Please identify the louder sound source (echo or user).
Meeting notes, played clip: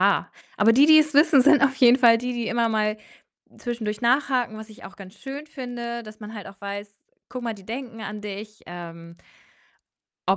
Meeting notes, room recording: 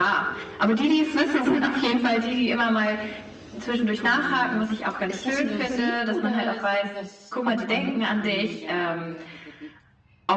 echo